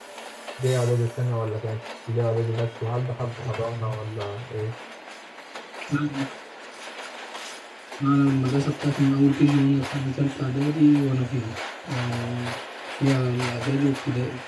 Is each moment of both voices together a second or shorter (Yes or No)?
Yes